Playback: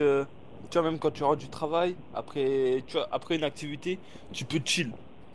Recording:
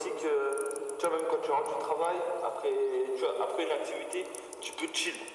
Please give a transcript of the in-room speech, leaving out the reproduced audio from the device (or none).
none